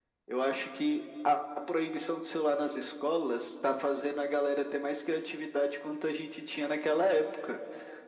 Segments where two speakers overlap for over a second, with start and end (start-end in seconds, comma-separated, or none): none